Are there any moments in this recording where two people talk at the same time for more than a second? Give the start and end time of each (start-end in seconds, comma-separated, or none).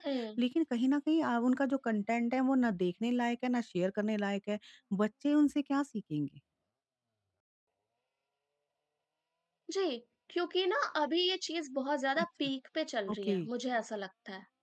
none